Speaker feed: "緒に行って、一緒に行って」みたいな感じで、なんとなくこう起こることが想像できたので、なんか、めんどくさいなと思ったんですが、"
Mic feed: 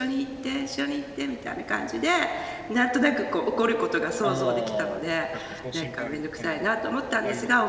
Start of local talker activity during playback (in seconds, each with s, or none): 4.2 s